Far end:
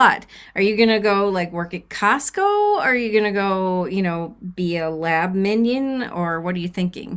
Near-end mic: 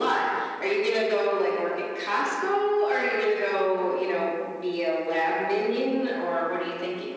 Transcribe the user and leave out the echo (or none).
none